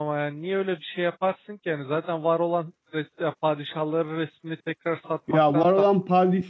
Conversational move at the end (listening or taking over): taking over